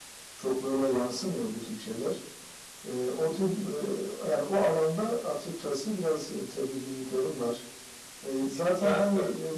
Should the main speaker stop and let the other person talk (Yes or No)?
No